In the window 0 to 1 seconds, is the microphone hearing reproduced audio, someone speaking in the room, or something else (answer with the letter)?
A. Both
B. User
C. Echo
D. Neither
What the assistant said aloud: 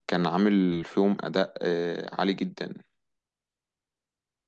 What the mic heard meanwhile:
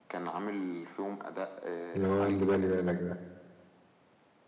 C